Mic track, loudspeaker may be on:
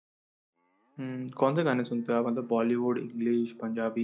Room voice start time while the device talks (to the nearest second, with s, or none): 1 s